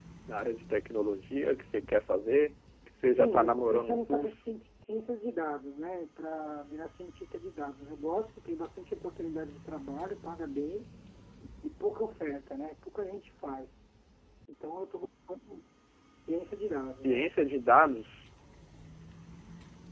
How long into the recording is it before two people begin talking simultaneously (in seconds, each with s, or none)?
3.1 s